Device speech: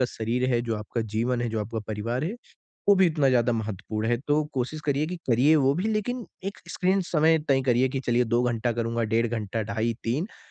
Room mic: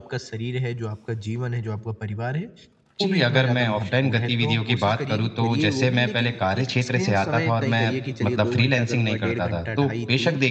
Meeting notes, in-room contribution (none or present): present